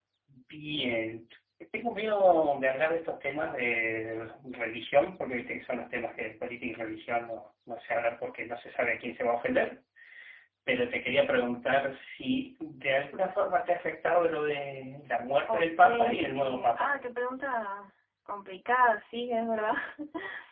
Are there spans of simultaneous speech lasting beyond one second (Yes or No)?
Yes